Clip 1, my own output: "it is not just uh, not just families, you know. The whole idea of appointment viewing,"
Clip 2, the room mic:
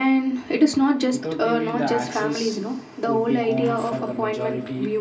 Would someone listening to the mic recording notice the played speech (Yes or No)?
Yes